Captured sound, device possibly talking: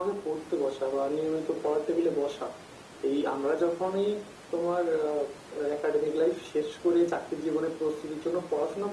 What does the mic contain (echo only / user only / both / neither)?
echo only